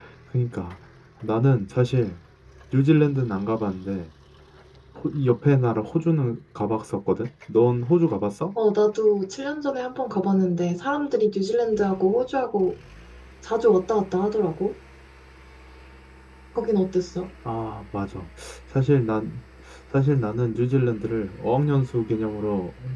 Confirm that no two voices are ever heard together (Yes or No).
Yes